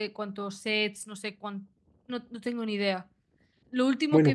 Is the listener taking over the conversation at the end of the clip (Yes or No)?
No